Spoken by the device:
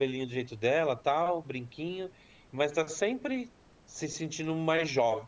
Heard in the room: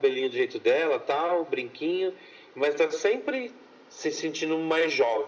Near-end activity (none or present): none